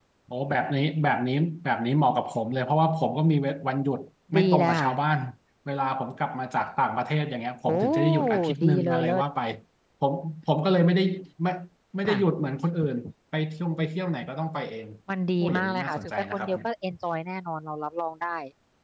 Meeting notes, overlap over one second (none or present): present